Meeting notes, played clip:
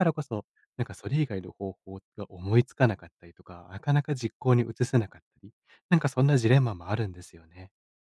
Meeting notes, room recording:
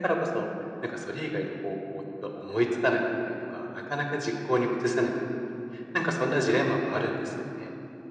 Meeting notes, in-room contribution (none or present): none